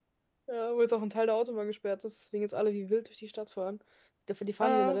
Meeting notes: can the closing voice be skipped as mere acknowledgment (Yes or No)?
Yes